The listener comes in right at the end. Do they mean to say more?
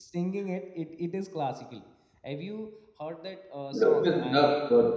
Yes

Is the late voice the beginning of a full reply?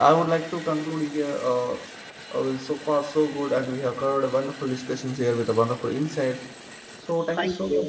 No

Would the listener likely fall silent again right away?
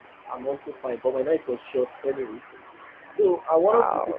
Yes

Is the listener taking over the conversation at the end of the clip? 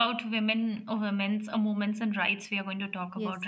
Yes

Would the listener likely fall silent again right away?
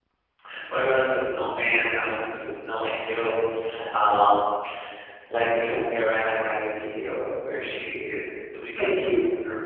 Yes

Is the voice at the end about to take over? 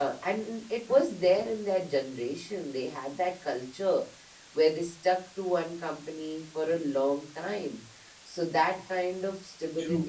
No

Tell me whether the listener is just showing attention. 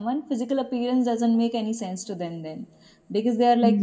Yes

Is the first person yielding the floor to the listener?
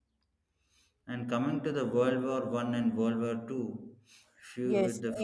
Yes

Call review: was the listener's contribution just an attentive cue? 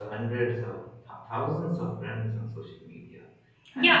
No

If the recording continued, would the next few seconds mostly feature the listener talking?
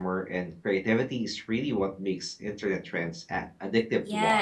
Yes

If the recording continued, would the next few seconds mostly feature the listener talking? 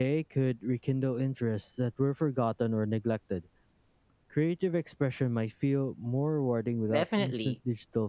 Yes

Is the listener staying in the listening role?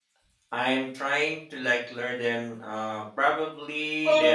No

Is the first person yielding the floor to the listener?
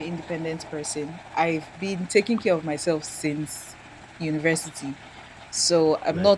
No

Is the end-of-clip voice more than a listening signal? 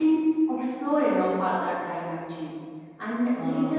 No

